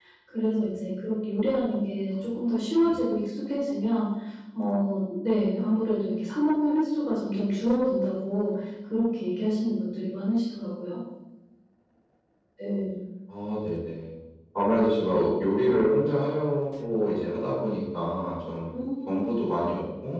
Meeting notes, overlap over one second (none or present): none